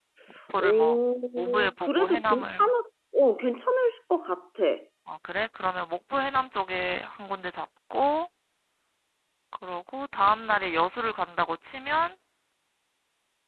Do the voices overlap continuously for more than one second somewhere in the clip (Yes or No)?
Yes